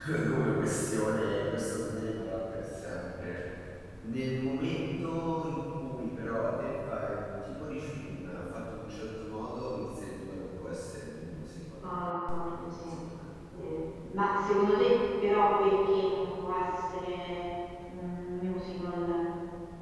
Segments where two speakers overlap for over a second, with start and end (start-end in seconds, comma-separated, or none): none